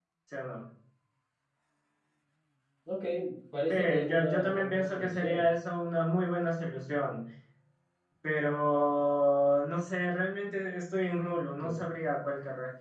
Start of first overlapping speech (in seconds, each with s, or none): 3.7 s